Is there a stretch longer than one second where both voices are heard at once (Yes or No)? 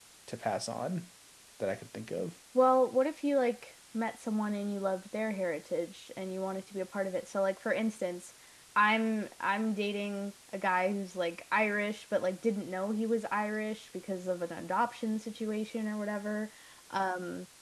No